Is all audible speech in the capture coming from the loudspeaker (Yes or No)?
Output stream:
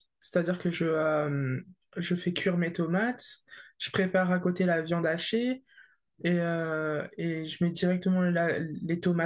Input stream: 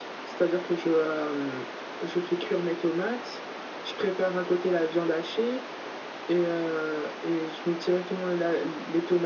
Yes